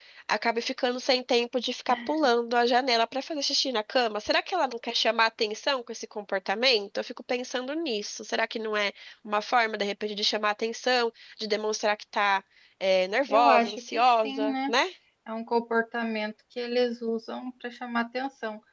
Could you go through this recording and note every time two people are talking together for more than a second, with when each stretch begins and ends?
13.3-14.7

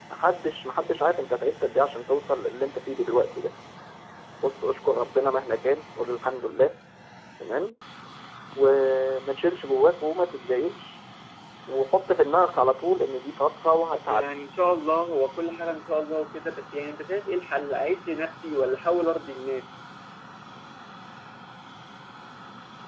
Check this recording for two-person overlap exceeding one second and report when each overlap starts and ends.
none

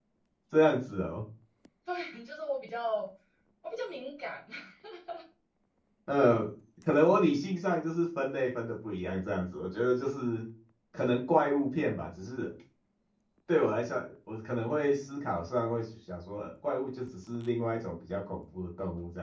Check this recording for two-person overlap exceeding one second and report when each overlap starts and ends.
none

